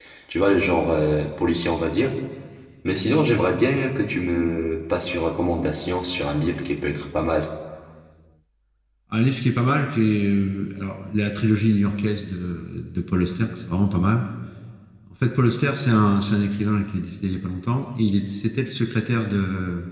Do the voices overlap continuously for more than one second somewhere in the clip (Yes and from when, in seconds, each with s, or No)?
No